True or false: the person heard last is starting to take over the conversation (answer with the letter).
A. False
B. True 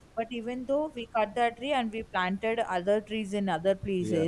A